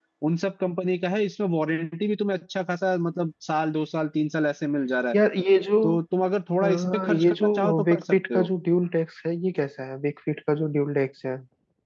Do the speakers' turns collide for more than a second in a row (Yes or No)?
Yes